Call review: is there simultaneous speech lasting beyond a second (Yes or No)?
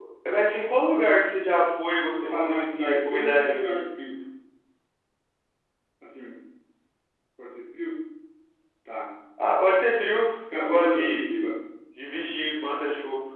Yes